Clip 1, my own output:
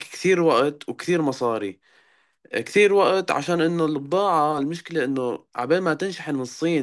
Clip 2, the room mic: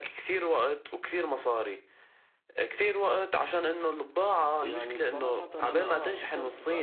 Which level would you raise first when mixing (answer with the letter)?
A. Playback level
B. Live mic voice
B